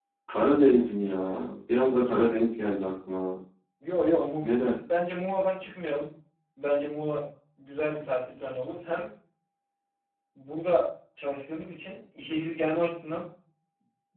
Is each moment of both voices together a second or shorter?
Yes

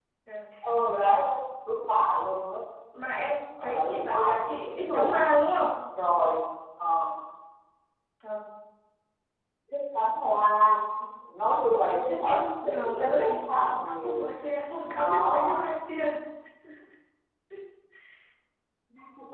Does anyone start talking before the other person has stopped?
Yes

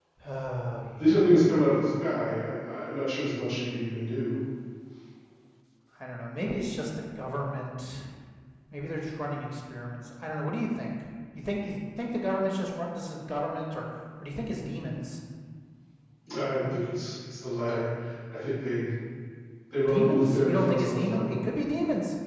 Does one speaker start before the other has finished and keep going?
Yes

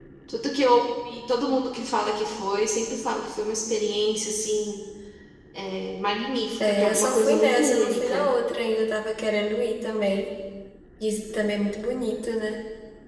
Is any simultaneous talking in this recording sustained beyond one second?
Yes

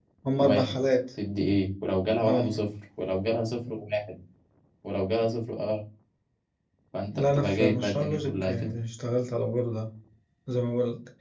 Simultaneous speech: Yes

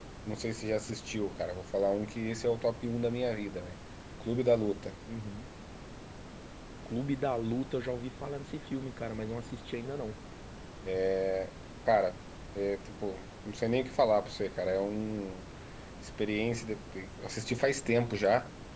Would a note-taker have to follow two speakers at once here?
No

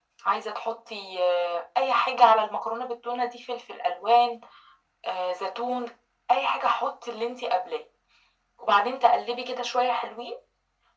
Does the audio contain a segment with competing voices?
No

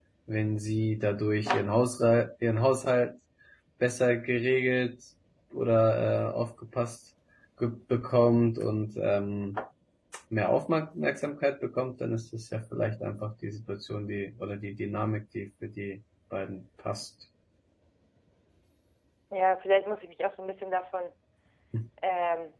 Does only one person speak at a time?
Yes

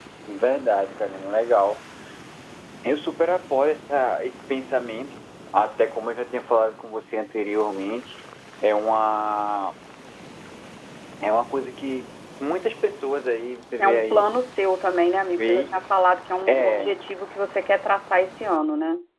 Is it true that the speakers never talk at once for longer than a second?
Yes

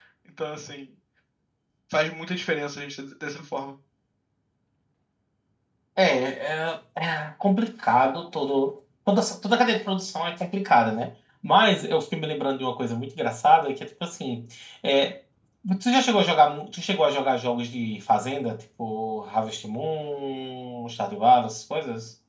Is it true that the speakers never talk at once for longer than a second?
Yes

